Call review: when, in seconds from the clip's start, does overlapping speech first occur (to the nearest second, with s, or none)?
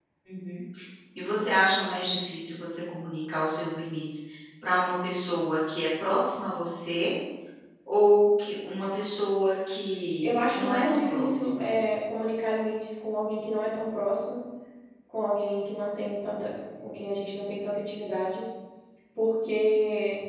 10 s